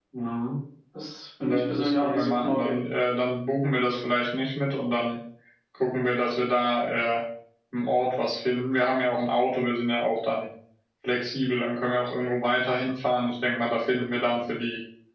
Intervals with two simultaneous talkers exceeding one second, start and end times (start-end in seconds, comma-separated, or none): 1.4-2.7